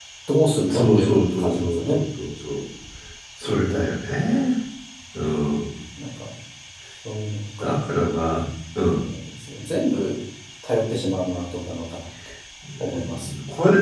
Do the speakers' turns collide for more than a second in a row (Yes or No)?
Yes